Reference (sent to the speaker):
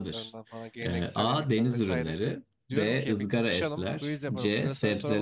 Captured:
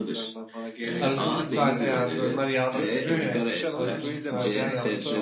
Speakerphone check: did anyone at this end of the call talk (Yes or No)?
Yes